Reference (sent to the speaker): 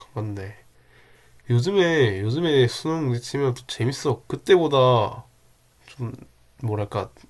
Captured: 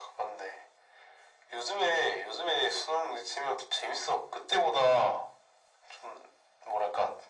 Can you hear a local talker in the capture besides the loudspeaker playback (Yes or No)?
No